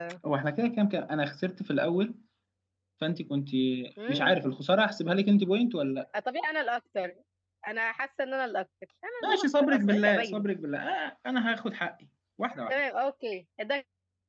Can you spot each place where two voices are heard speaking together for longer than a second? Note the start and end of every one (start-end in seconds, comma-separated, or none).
9.2-10.4